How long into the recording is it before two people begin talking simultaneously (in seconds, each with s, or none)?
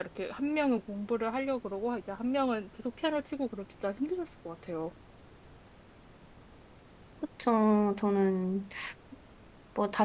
none